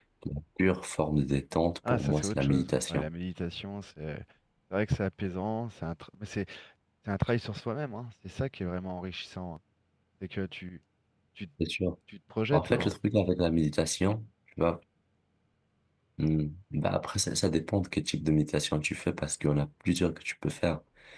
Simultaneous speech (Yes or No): Yes